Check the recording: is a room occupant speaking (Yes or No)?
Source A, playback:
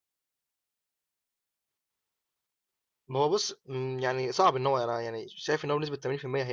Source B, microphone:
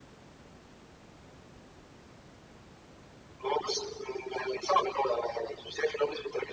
No